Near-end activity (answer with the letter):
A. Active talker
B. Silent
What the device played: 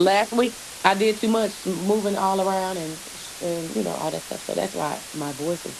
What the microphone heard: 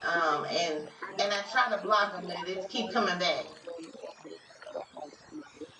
A